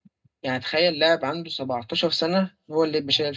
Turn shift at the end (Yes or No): Yes